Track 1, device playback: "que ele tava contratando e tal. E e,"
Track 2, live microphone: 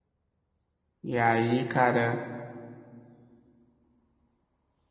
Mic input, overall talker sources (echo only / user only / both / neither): user only